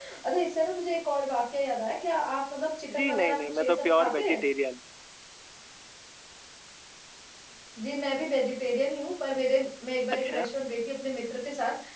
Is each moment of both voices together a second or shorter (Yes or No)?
No